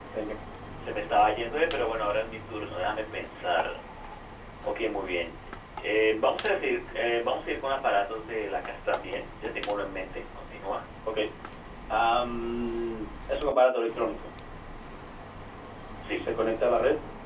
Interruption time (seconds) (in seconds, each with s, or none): none